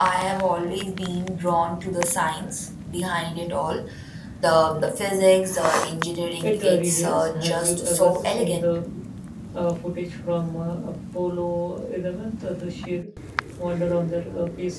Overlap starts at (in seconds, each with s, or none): 6.4 s